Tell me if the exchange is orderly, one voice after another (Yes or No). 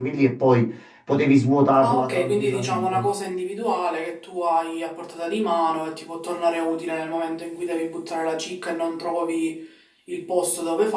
No